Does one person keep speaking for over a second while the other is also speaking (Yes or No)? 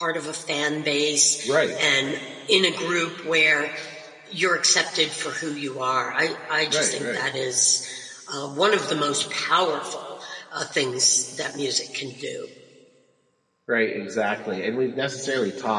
No